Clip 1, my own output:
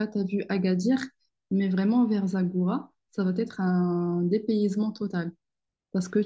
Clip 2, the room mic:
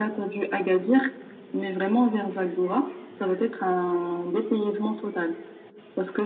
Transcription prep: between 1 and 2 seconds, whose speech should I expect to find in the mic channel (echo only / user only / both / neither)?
echo only